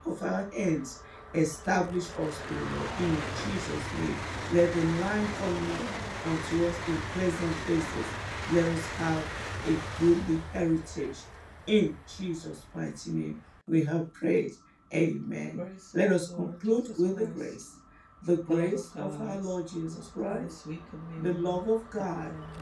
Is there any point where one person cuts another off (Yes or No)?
Yes